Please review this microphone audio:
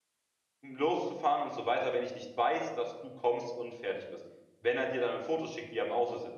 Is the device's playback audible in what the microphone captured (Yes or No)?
No